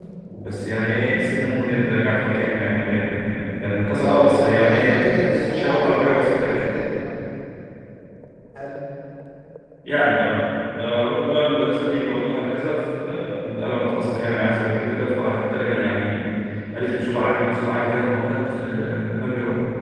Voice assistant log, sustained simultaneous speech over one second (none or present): present